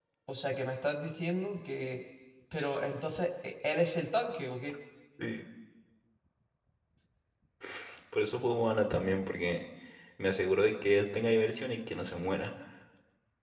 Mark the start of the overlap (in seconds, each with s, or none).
none